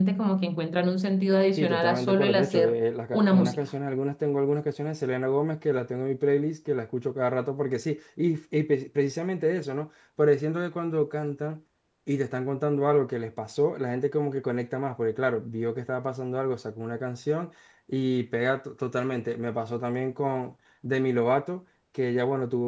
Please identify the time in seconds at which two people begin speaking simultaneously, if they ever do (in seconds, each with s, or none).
1.6 s